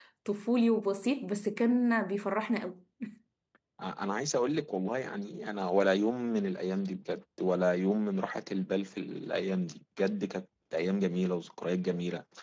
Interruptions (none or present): none